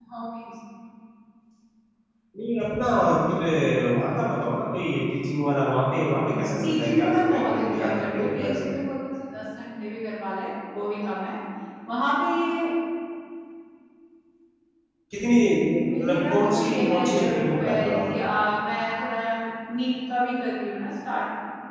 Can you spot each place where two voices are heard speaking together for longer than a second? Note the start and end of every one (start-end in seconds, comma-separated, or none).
6.1-8.8, 15.8-18.3